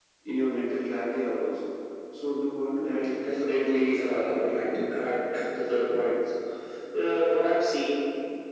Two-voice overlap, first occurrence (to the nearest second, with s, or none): 3 s